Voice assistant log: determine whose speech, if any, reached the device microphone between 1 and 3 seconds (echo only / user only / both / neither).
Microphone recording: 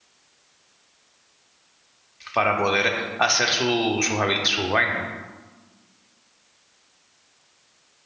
user only